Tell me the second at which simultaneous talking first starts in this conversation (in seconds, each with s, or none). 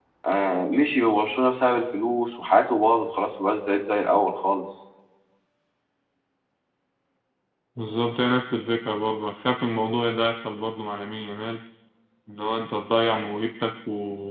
none